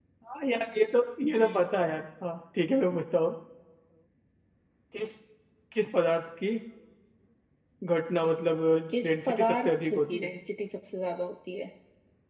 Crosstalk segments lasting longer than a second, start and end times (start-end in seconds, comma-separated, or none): 9.0-10.3